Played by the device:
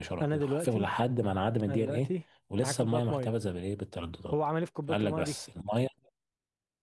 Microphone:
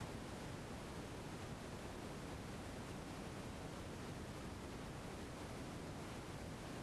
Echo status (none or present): none